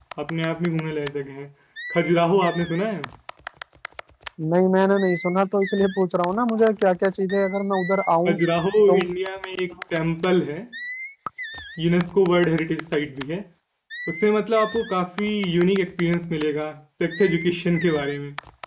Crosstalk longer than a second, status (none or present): none